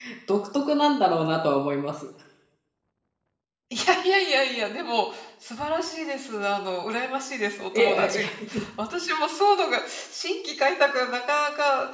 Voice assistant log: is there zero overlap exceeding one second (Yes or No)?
Yes